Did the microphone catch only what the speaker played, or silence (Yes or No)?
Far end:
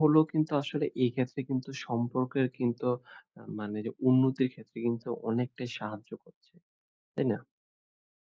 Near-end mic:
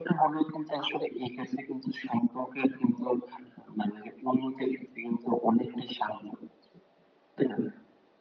Yes